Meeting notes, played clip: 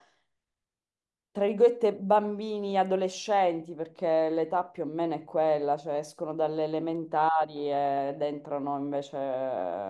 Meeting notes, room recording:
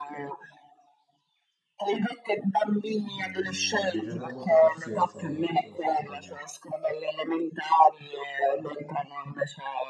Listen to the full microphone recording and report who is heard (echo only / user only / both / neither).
both